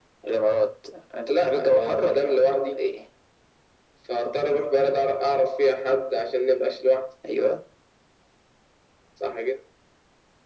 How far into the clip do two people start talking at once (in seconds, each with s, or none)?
1.3 s